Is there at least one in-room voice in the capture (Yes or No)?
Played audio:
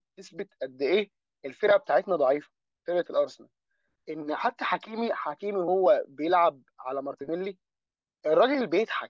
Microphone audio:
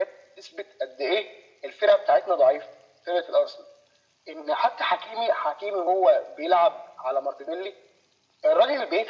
No